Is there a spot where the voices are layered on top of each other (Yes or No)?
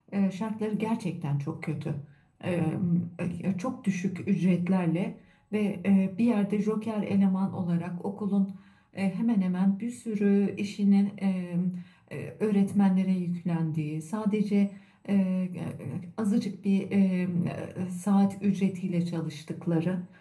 No